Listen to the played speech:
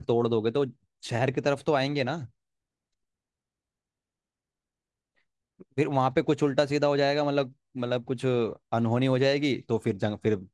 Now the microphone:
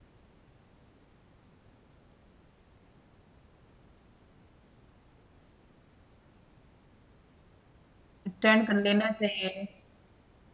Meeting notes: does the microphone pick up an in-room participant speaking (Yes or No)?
Yes